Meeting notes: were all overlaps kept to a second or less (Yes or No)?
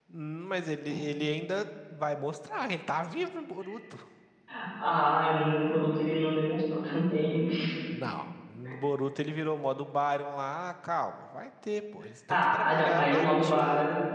No